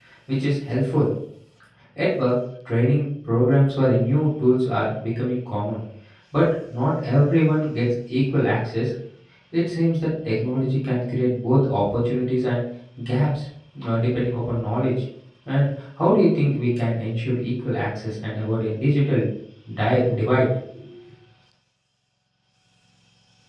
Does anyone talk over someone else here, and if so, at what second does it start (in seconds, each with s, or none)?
none